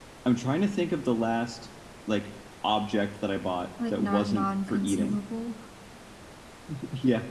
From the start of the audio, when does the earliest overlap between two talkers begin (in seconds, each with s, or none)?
3.8 s